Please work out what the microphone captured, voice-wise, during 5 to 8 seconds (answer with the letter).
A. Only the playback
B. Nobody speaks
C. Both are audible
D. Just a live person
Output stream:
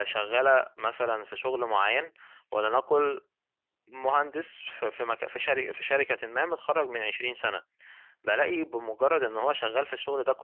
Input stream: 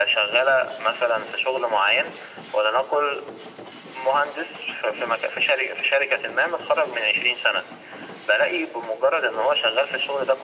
A